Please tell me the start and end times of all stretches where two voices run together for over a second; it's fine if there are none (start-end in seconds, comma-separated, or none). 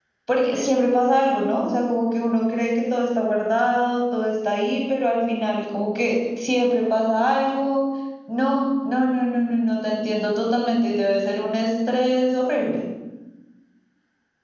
none